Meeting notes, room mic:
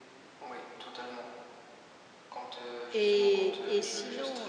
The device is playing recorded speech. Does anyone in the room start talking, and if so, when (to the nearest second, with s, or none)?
3 s